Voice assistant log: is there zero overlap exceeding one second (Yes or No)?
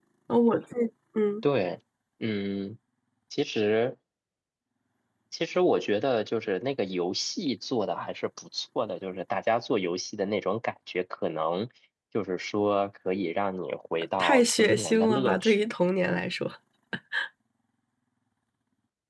No